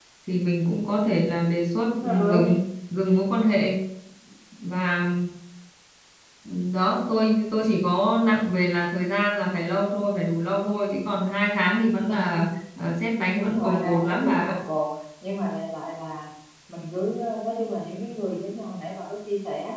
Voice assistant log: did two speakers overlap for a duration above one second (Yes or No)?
Yes